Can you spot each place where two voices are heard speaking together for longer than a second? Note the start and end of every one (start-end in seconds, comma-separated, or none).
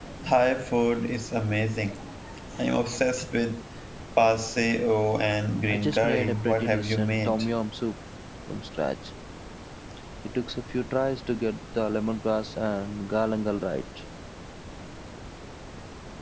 5.7-7.4